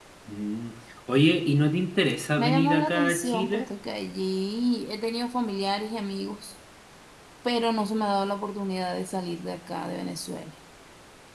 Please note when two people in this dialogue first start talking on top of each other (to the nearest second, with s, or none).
2 s